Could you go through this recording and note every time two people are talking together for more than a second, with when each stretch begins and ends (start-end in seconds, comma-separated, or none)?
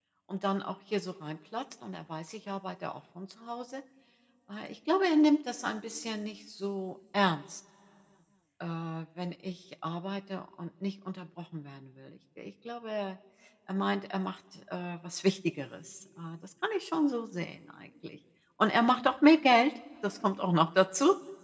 none